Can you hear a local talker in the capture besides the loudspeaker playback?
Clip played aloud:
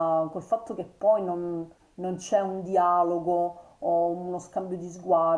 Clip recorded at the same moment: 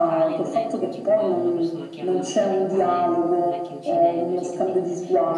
Yes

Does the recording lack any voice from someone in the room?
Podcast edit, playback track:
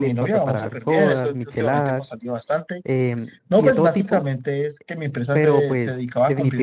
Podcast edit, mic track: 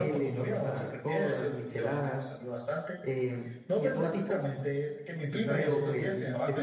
No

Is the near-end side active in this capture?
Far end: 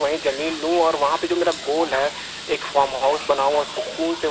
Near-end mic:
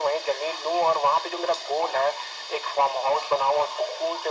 No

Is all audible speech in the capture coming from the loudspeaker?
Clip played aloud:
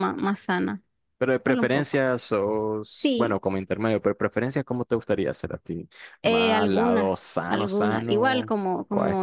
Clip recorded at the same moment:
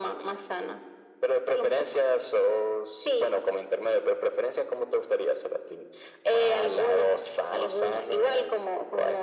Yes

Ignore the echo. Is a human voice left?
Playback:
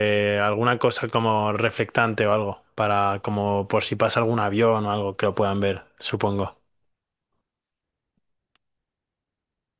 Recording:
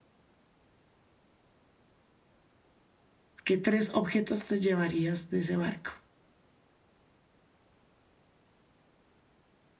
Yes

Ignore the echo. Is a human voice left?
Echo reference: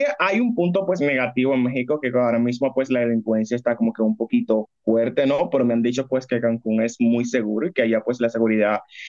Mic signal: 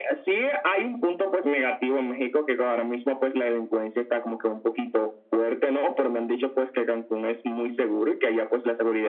No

